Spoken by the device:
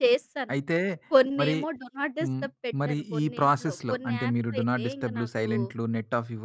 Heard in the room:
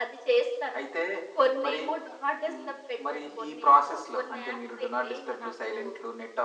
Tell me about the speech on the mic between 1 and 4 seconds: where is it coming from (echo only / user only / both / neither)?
echo only